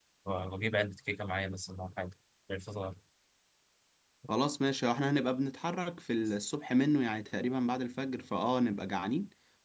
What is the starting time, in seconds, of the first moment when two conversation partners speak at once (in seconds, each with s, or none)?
none